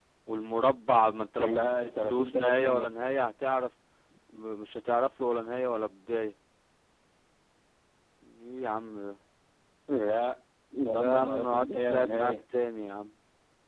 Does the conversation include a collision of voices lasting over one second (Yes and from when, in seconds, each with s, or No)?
Yes, from 1.4 s